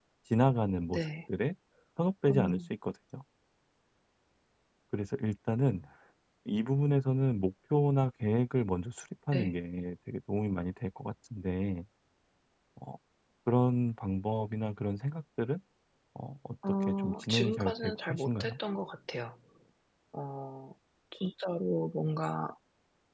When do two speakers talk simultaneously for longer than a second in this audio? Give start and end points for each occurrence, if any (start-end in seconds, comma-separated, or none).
16.8-18.5